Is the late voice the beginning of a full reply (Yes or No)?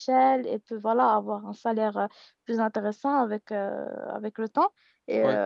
No